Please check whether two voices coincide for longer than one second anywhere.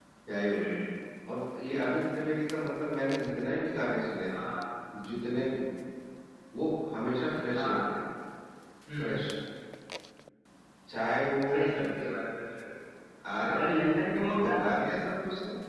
No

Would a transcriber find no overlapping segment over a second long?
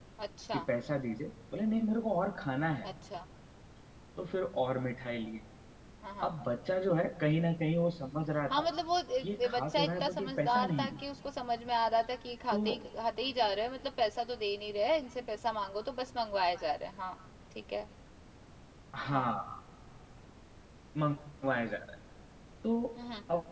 No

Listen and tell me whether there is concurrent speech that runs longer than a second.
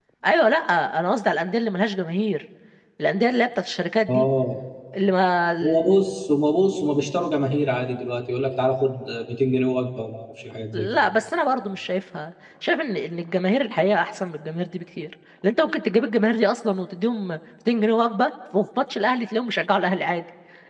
No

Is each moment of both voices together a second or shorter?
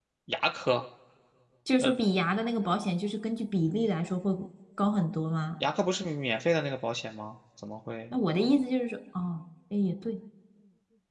Yes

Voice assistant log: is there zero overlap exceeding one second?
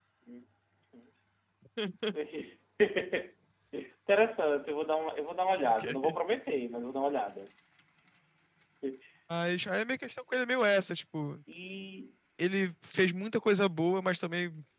Yes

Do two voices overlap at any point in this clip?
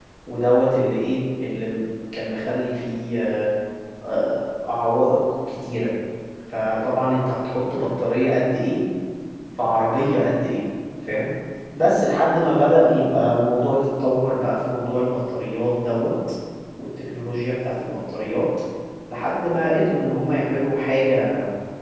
No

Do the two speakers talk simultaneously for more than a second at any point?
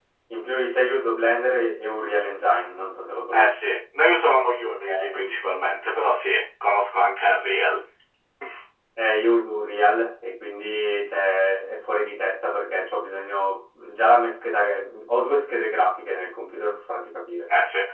No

